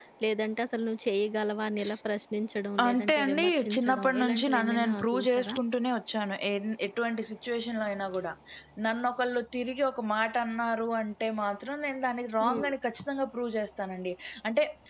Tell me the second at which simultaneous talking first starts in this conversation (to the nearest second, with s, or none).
3 s